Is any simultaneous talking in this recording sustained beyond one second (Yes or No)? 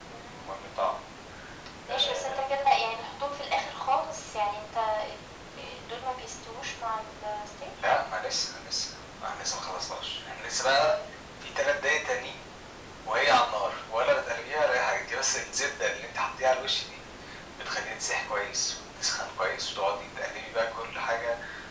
No